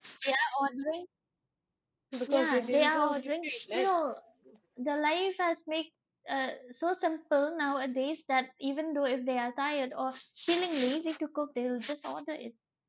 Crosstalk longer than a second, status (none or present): present